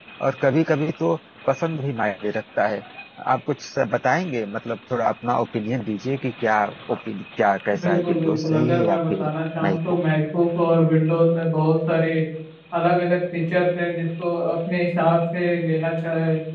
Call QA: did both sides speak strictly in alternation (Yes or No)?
No